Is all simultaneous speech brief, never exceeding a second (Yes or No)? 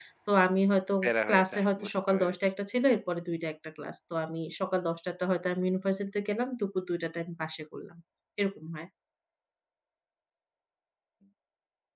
No